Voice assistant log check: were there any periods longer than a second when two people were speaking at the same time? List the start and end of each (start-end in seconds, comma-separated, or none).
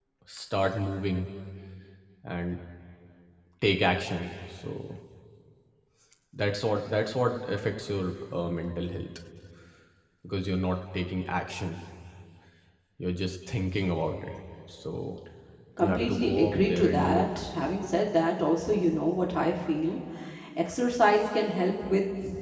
15.8-17.2